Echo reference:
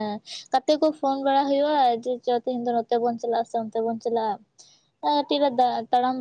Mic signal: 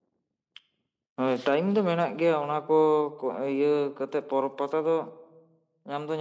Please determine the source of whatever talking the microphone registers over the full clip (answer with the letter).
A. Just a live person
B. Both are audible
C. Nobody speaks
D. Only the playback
A